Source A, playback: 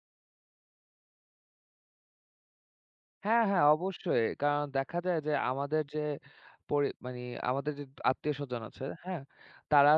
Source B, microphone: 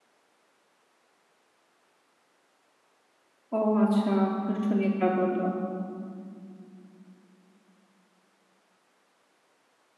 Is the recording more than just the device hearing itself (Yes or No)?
Yes